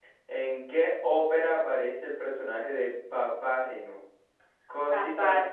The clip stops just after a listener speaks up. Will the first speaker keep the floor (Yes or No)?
Yes